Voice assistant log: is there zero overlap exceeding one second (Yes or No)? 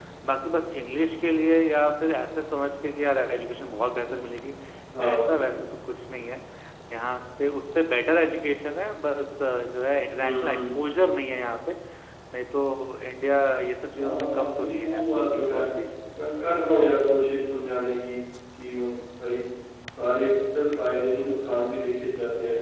No